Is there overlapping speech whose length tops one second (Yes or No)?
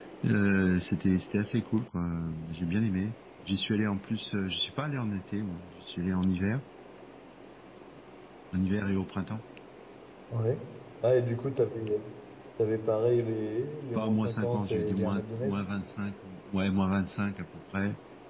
Yes